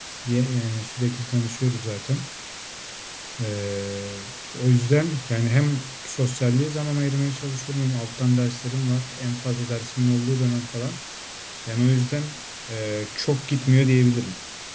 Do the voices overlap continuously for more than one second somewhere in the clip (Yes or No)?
No